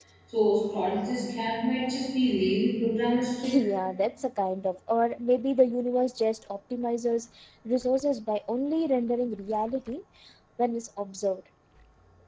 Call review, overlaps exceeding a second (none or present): none